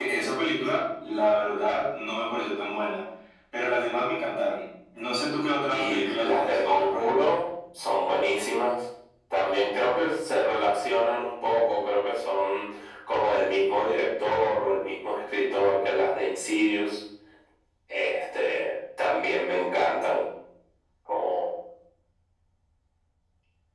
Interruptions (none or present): present